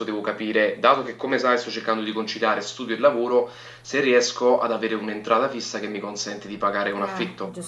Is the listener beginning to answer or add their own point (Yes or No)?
Yes